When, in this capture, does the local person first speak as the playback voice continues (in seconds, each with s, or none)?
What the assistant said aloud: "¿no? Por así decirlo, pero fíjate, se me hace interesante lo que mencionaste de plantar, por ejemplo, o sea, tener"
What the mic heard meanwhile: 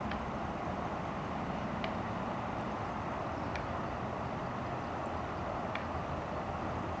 none